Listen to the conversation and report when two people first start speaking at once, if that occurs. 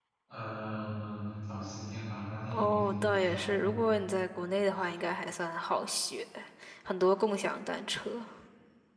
2.5 s

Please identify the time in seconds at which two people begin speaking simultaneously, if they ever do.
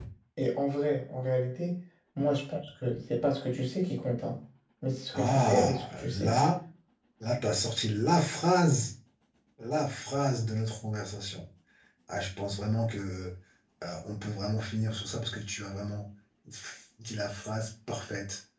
5.1 s

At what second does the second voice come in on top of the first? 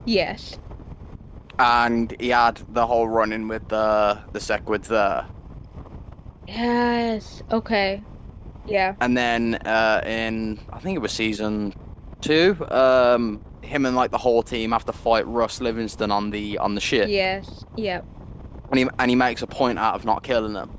none

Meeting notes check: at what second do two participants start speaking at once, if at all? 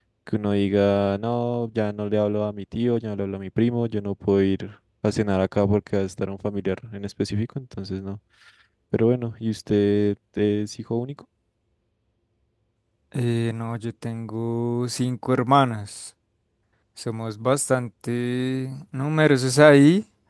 none

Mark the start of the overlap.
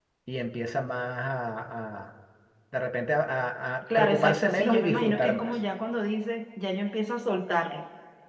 3.9 s

